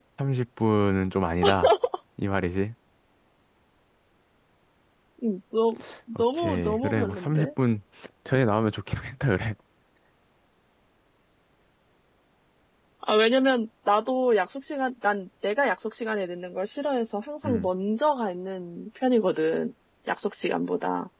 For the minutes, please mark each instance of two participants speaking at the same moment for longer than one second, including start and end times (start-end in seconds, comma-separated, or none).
6.2-7.5